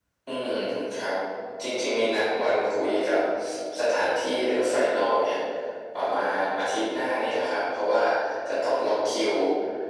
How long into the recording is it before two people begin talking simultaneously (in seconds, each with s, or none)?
none